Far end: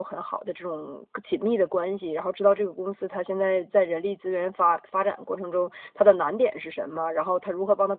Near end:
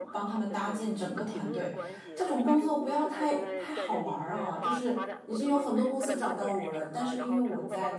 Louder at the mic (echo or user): user